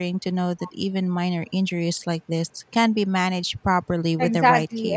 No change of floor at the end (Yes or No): No